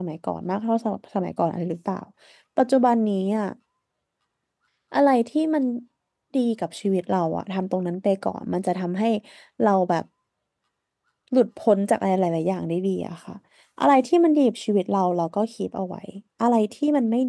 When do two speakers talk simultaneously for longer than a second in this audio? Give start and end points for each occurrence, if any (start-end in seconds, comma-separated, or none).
none